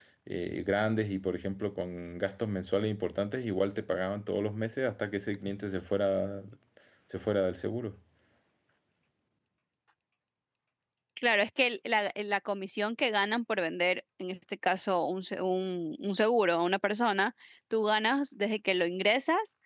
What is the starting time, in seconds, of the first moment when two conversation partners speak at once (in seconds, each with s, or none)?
none